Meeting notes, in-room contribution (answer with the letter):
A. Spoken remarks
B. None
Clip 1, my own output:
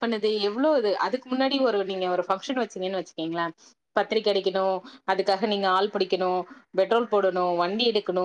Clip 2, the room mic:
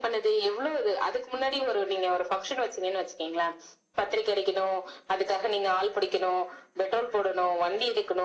B